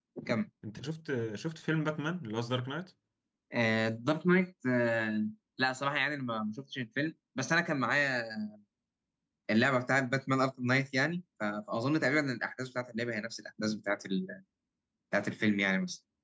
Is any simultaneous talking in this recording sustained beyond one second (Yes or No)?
No